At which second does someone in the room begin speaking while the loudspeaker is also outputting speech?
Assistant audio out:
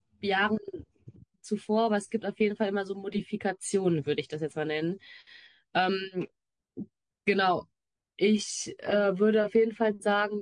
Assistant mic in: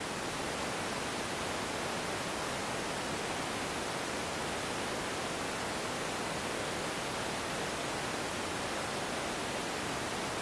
none

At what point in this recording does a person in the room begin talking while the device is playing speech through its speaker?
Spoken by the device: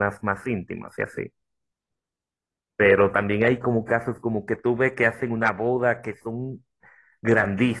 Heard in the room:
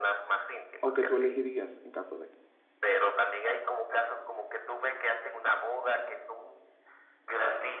0.8 s

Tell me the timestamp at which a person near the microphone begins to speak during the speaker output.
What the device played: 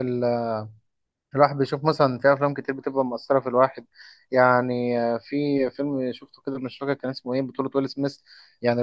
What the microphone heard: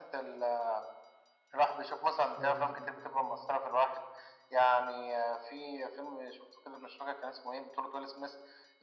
2.4 s

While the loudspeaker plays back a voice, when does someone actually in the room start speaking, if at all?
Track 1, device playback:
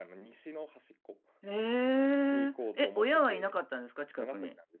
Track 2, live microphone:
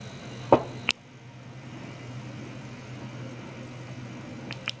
none

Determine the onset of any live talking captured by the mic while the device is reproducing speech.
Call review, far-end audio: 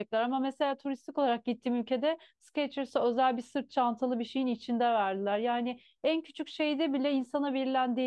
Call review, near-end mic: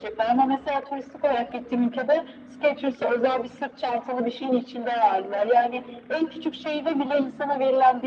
none

